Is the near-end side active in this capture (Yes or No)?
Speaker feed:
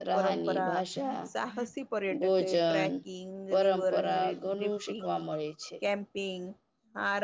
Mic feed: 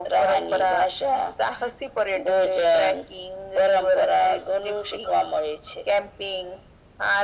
No